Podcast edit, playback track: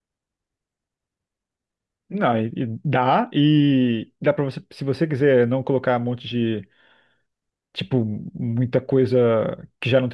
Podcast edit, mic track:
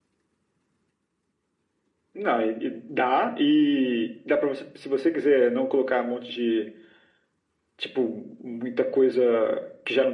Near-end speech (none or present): none